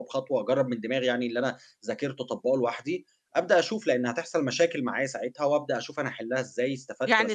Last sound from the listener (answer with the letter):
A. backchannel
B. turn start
B